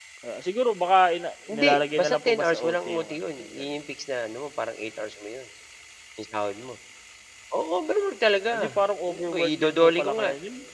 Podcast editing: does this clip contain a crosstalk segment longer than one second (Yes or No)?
Yes